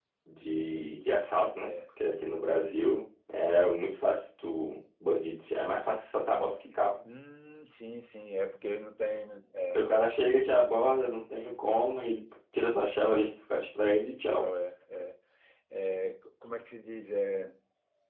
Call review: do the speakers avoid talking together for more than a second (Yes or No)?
Yes